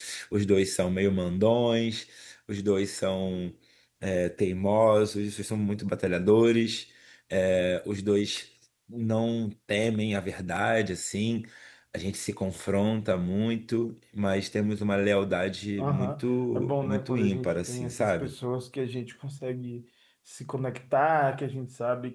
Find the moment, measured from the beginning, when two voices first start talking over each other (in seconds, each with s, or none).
15.8 s